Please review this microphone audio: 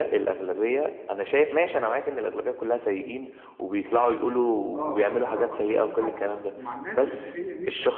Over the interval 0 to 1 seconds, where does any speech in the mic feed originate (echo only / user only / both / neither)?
echo only